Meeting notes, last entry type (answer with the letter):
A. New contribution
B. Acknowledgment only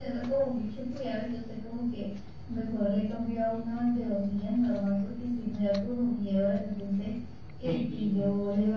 B